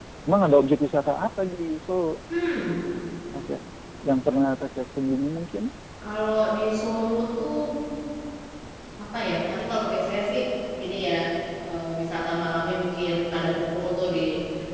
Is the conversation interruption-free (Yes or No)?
Yes